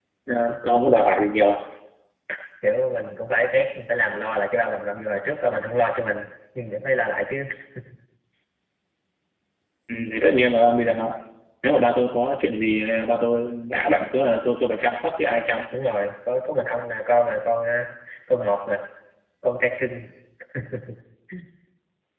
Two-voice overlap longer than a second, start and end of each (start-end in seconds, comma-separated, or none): none